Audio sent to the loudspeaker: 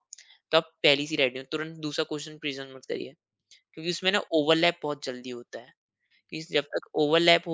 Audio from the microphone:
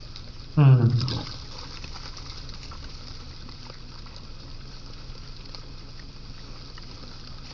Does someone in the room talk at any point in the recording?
Yes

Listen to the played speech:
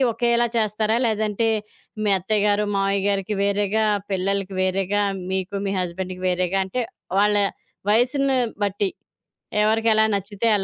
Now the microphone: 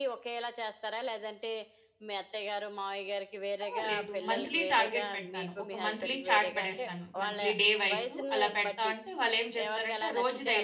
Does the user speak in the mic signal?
Yes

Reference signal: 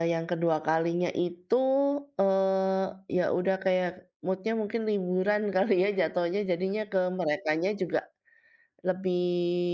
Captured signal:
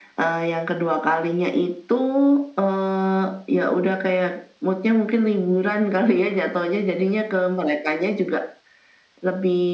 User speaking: No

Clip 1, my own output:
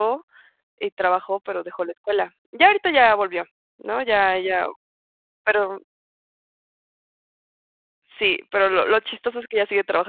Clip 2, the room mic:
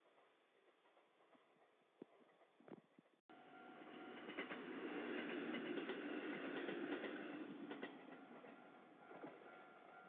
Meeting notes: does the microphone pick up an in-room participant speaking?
No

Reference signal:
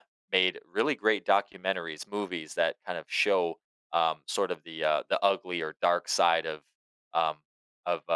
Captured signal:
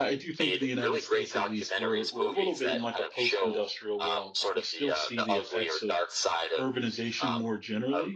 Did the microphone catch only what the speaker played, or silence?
No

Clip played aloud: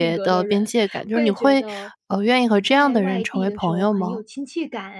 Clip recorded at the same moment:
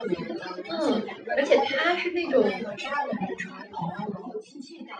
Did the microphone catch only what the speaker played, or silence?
No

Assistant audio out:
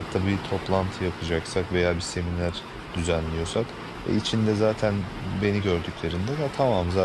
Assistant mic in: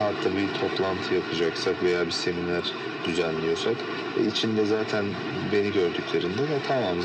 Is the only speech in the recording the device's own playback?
Yes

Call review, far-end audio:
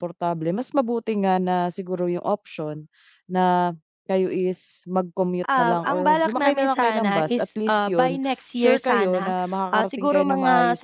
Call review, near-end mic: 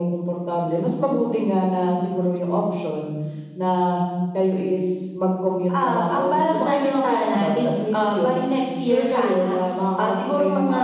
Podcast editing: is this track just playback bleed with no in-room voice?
Yes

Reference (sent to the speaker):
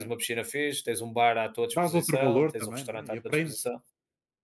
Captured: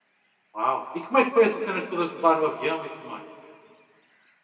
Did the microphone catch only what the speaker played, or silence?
No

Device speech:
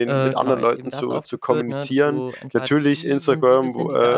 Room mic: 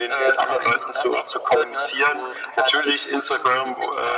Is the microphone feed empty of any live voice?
Yes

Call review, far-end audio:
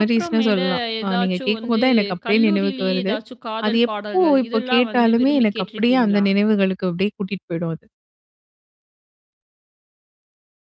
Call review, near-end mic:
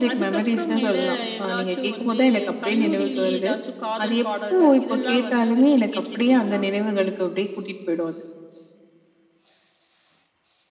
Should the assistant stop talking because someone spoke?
No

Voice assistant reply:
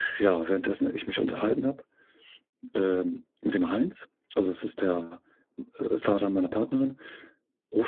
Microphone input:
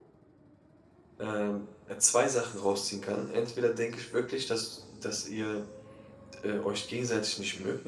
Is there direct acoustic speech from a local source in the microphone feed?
Yes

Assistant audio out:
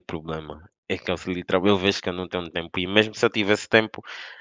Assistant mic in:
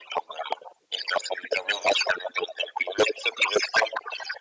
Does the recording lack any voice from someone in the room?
Yes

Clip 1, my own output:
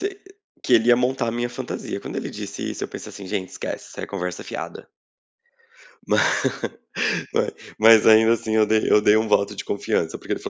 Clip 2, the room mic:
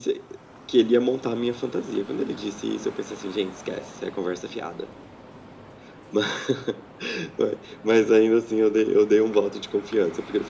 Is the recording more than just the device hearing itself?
No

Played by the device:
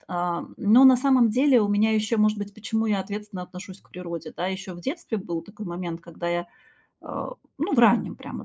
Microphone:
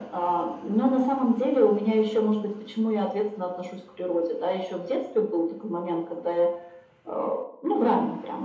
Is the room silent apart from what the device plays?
Yes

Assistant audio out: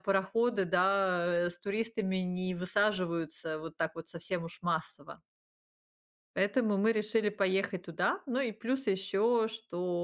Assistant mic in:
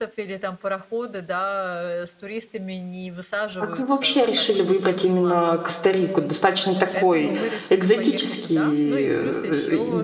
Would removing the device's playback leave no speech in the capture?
No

